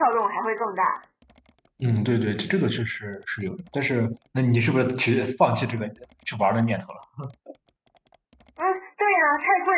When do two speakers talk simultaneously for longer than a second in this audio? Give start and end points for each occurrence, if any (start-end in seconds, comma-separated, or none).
none